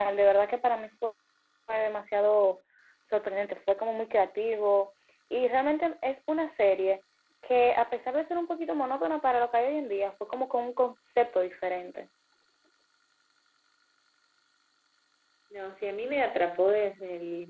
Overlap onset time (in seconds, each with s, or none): none